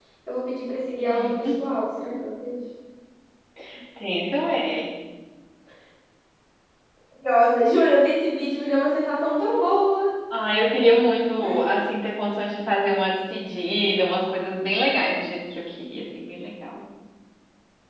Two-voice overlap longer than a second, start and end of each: none

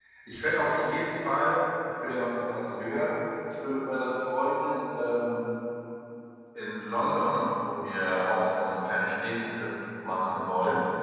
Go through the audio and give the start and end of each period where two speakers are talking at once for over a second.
none

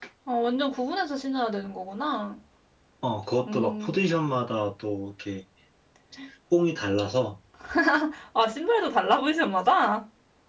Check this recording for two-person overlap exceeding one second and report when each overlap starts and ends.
none

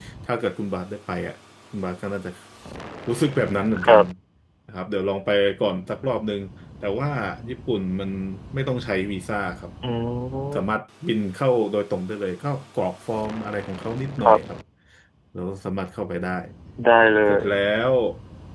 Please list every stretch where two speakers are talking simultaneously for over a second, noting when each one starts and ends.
none

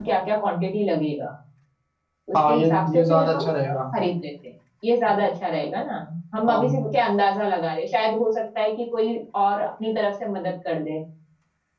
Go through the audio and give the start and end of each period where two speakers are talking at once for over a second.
2.4-3.8

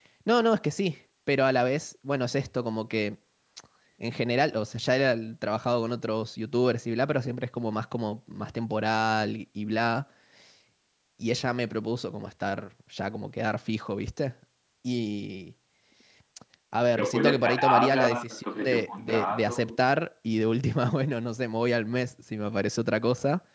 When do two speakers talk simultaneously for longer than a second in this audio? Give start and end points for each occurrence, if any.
17.0-19.7

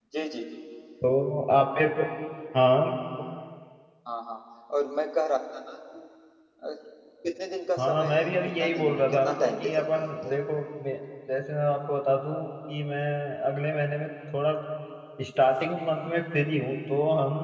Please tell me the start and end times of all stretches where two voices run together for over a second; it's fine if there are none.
7.8-10.3

